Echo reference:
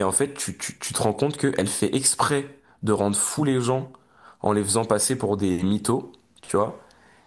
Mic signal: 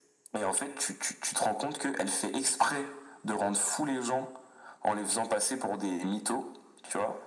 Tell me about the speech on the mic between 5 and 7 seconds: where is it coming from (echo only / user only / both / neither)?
echo only